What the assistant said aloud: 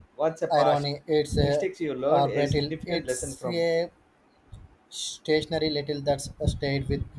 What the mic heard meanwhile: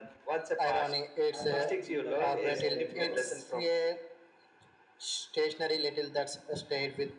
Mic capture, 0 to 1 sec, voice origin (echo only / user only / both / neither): echo only